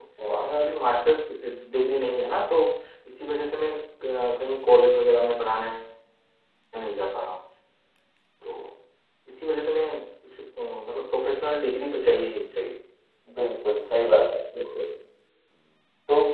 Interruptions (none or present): none